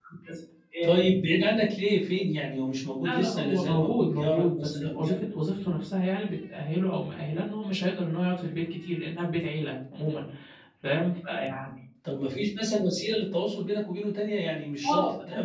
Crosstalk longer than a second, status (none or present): present